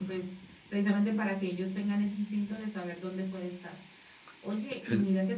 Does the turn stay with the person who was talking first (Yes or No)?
Yes